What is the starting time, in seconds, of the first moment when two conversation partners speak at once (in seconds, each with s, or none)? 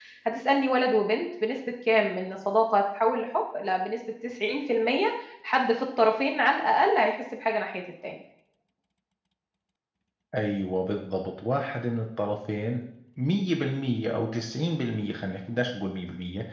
none